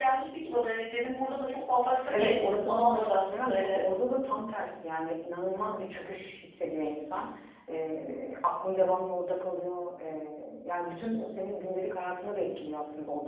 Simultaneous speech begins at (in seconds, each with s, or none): 2.1 s